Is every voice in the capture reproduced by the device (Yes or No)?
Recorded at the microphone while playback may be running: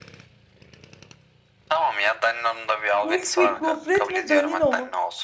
No